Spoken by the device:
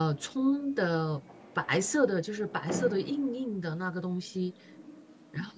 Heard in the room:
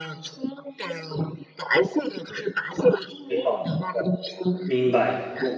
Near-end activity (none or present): present